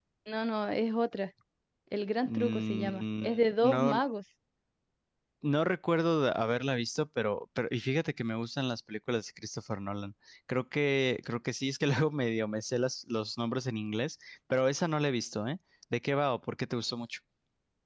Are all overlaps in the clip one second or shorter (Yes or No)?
No